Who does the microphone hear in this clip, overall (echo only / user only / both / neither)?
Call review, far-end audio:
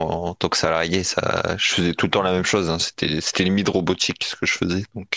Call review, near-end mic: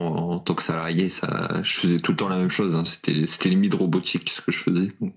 echo only